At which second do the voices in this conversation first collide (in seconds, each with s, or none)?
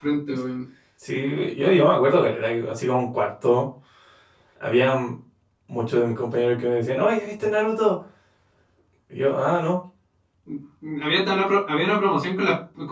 none